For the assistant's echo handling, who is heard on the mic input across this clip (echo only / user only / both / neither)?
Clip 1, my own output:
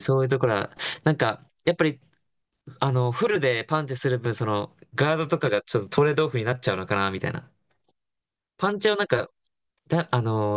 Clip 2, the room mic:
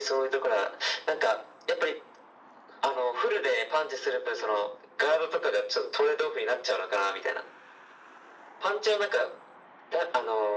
echo only